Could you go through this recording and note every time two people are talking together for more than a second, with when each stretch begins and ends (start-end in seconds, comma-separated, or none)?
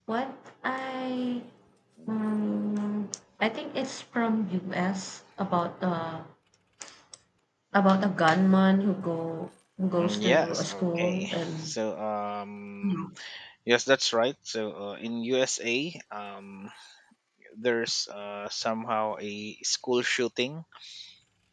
10.0-11.7